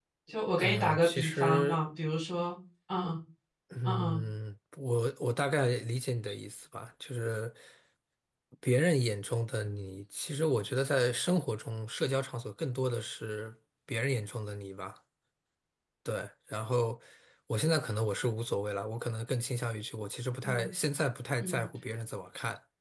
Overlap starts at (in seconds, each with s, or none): 0.6 s